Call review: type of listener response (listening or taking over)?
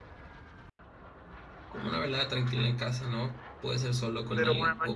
taking over